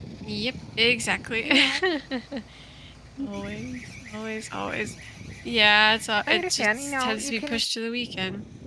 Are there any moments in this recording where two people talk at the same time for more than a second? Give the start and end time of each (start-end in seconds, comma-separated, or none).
6.3-7.6